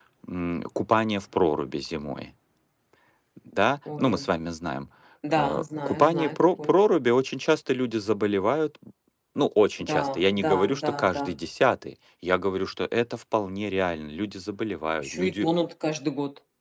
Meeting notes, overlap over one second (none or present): present